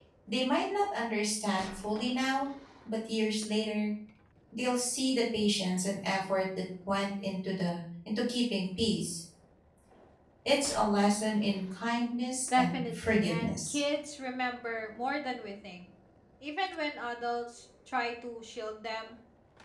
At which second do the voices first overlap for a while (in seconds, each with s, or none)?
12.5 s